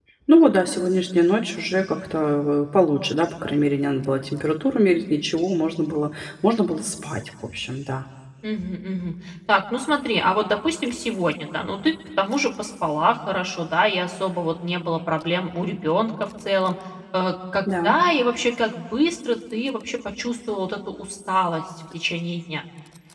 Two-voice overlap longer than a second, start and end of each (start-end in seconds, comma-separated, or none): none